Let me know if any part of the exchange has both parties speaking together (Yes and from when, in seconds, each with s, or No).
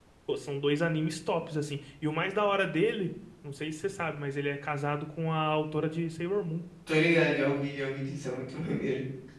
No